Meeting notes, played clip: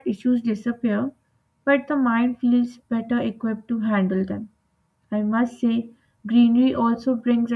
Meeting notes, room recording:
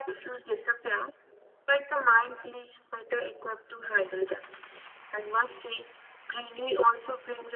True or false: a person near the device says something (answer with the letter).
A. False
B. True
A